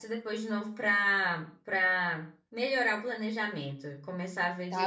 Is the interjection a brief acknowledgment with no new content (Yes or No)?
No